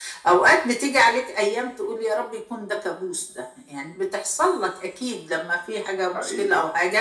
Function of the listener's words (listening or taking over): listening